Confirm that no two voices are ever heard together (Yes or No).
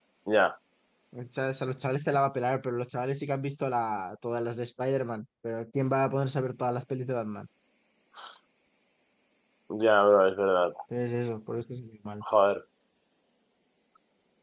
Yes